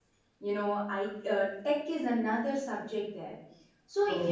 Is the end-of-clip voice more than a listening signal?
No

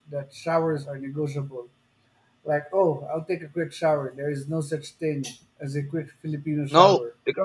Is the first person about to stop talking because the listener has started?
Yes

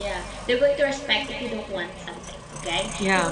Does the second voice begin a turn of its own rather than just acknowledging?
No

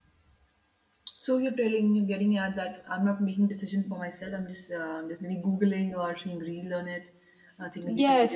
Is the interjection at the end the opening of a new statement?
Yes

